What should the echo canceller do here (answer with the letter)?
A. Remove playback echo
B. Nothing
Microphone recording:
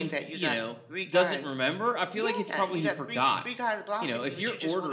A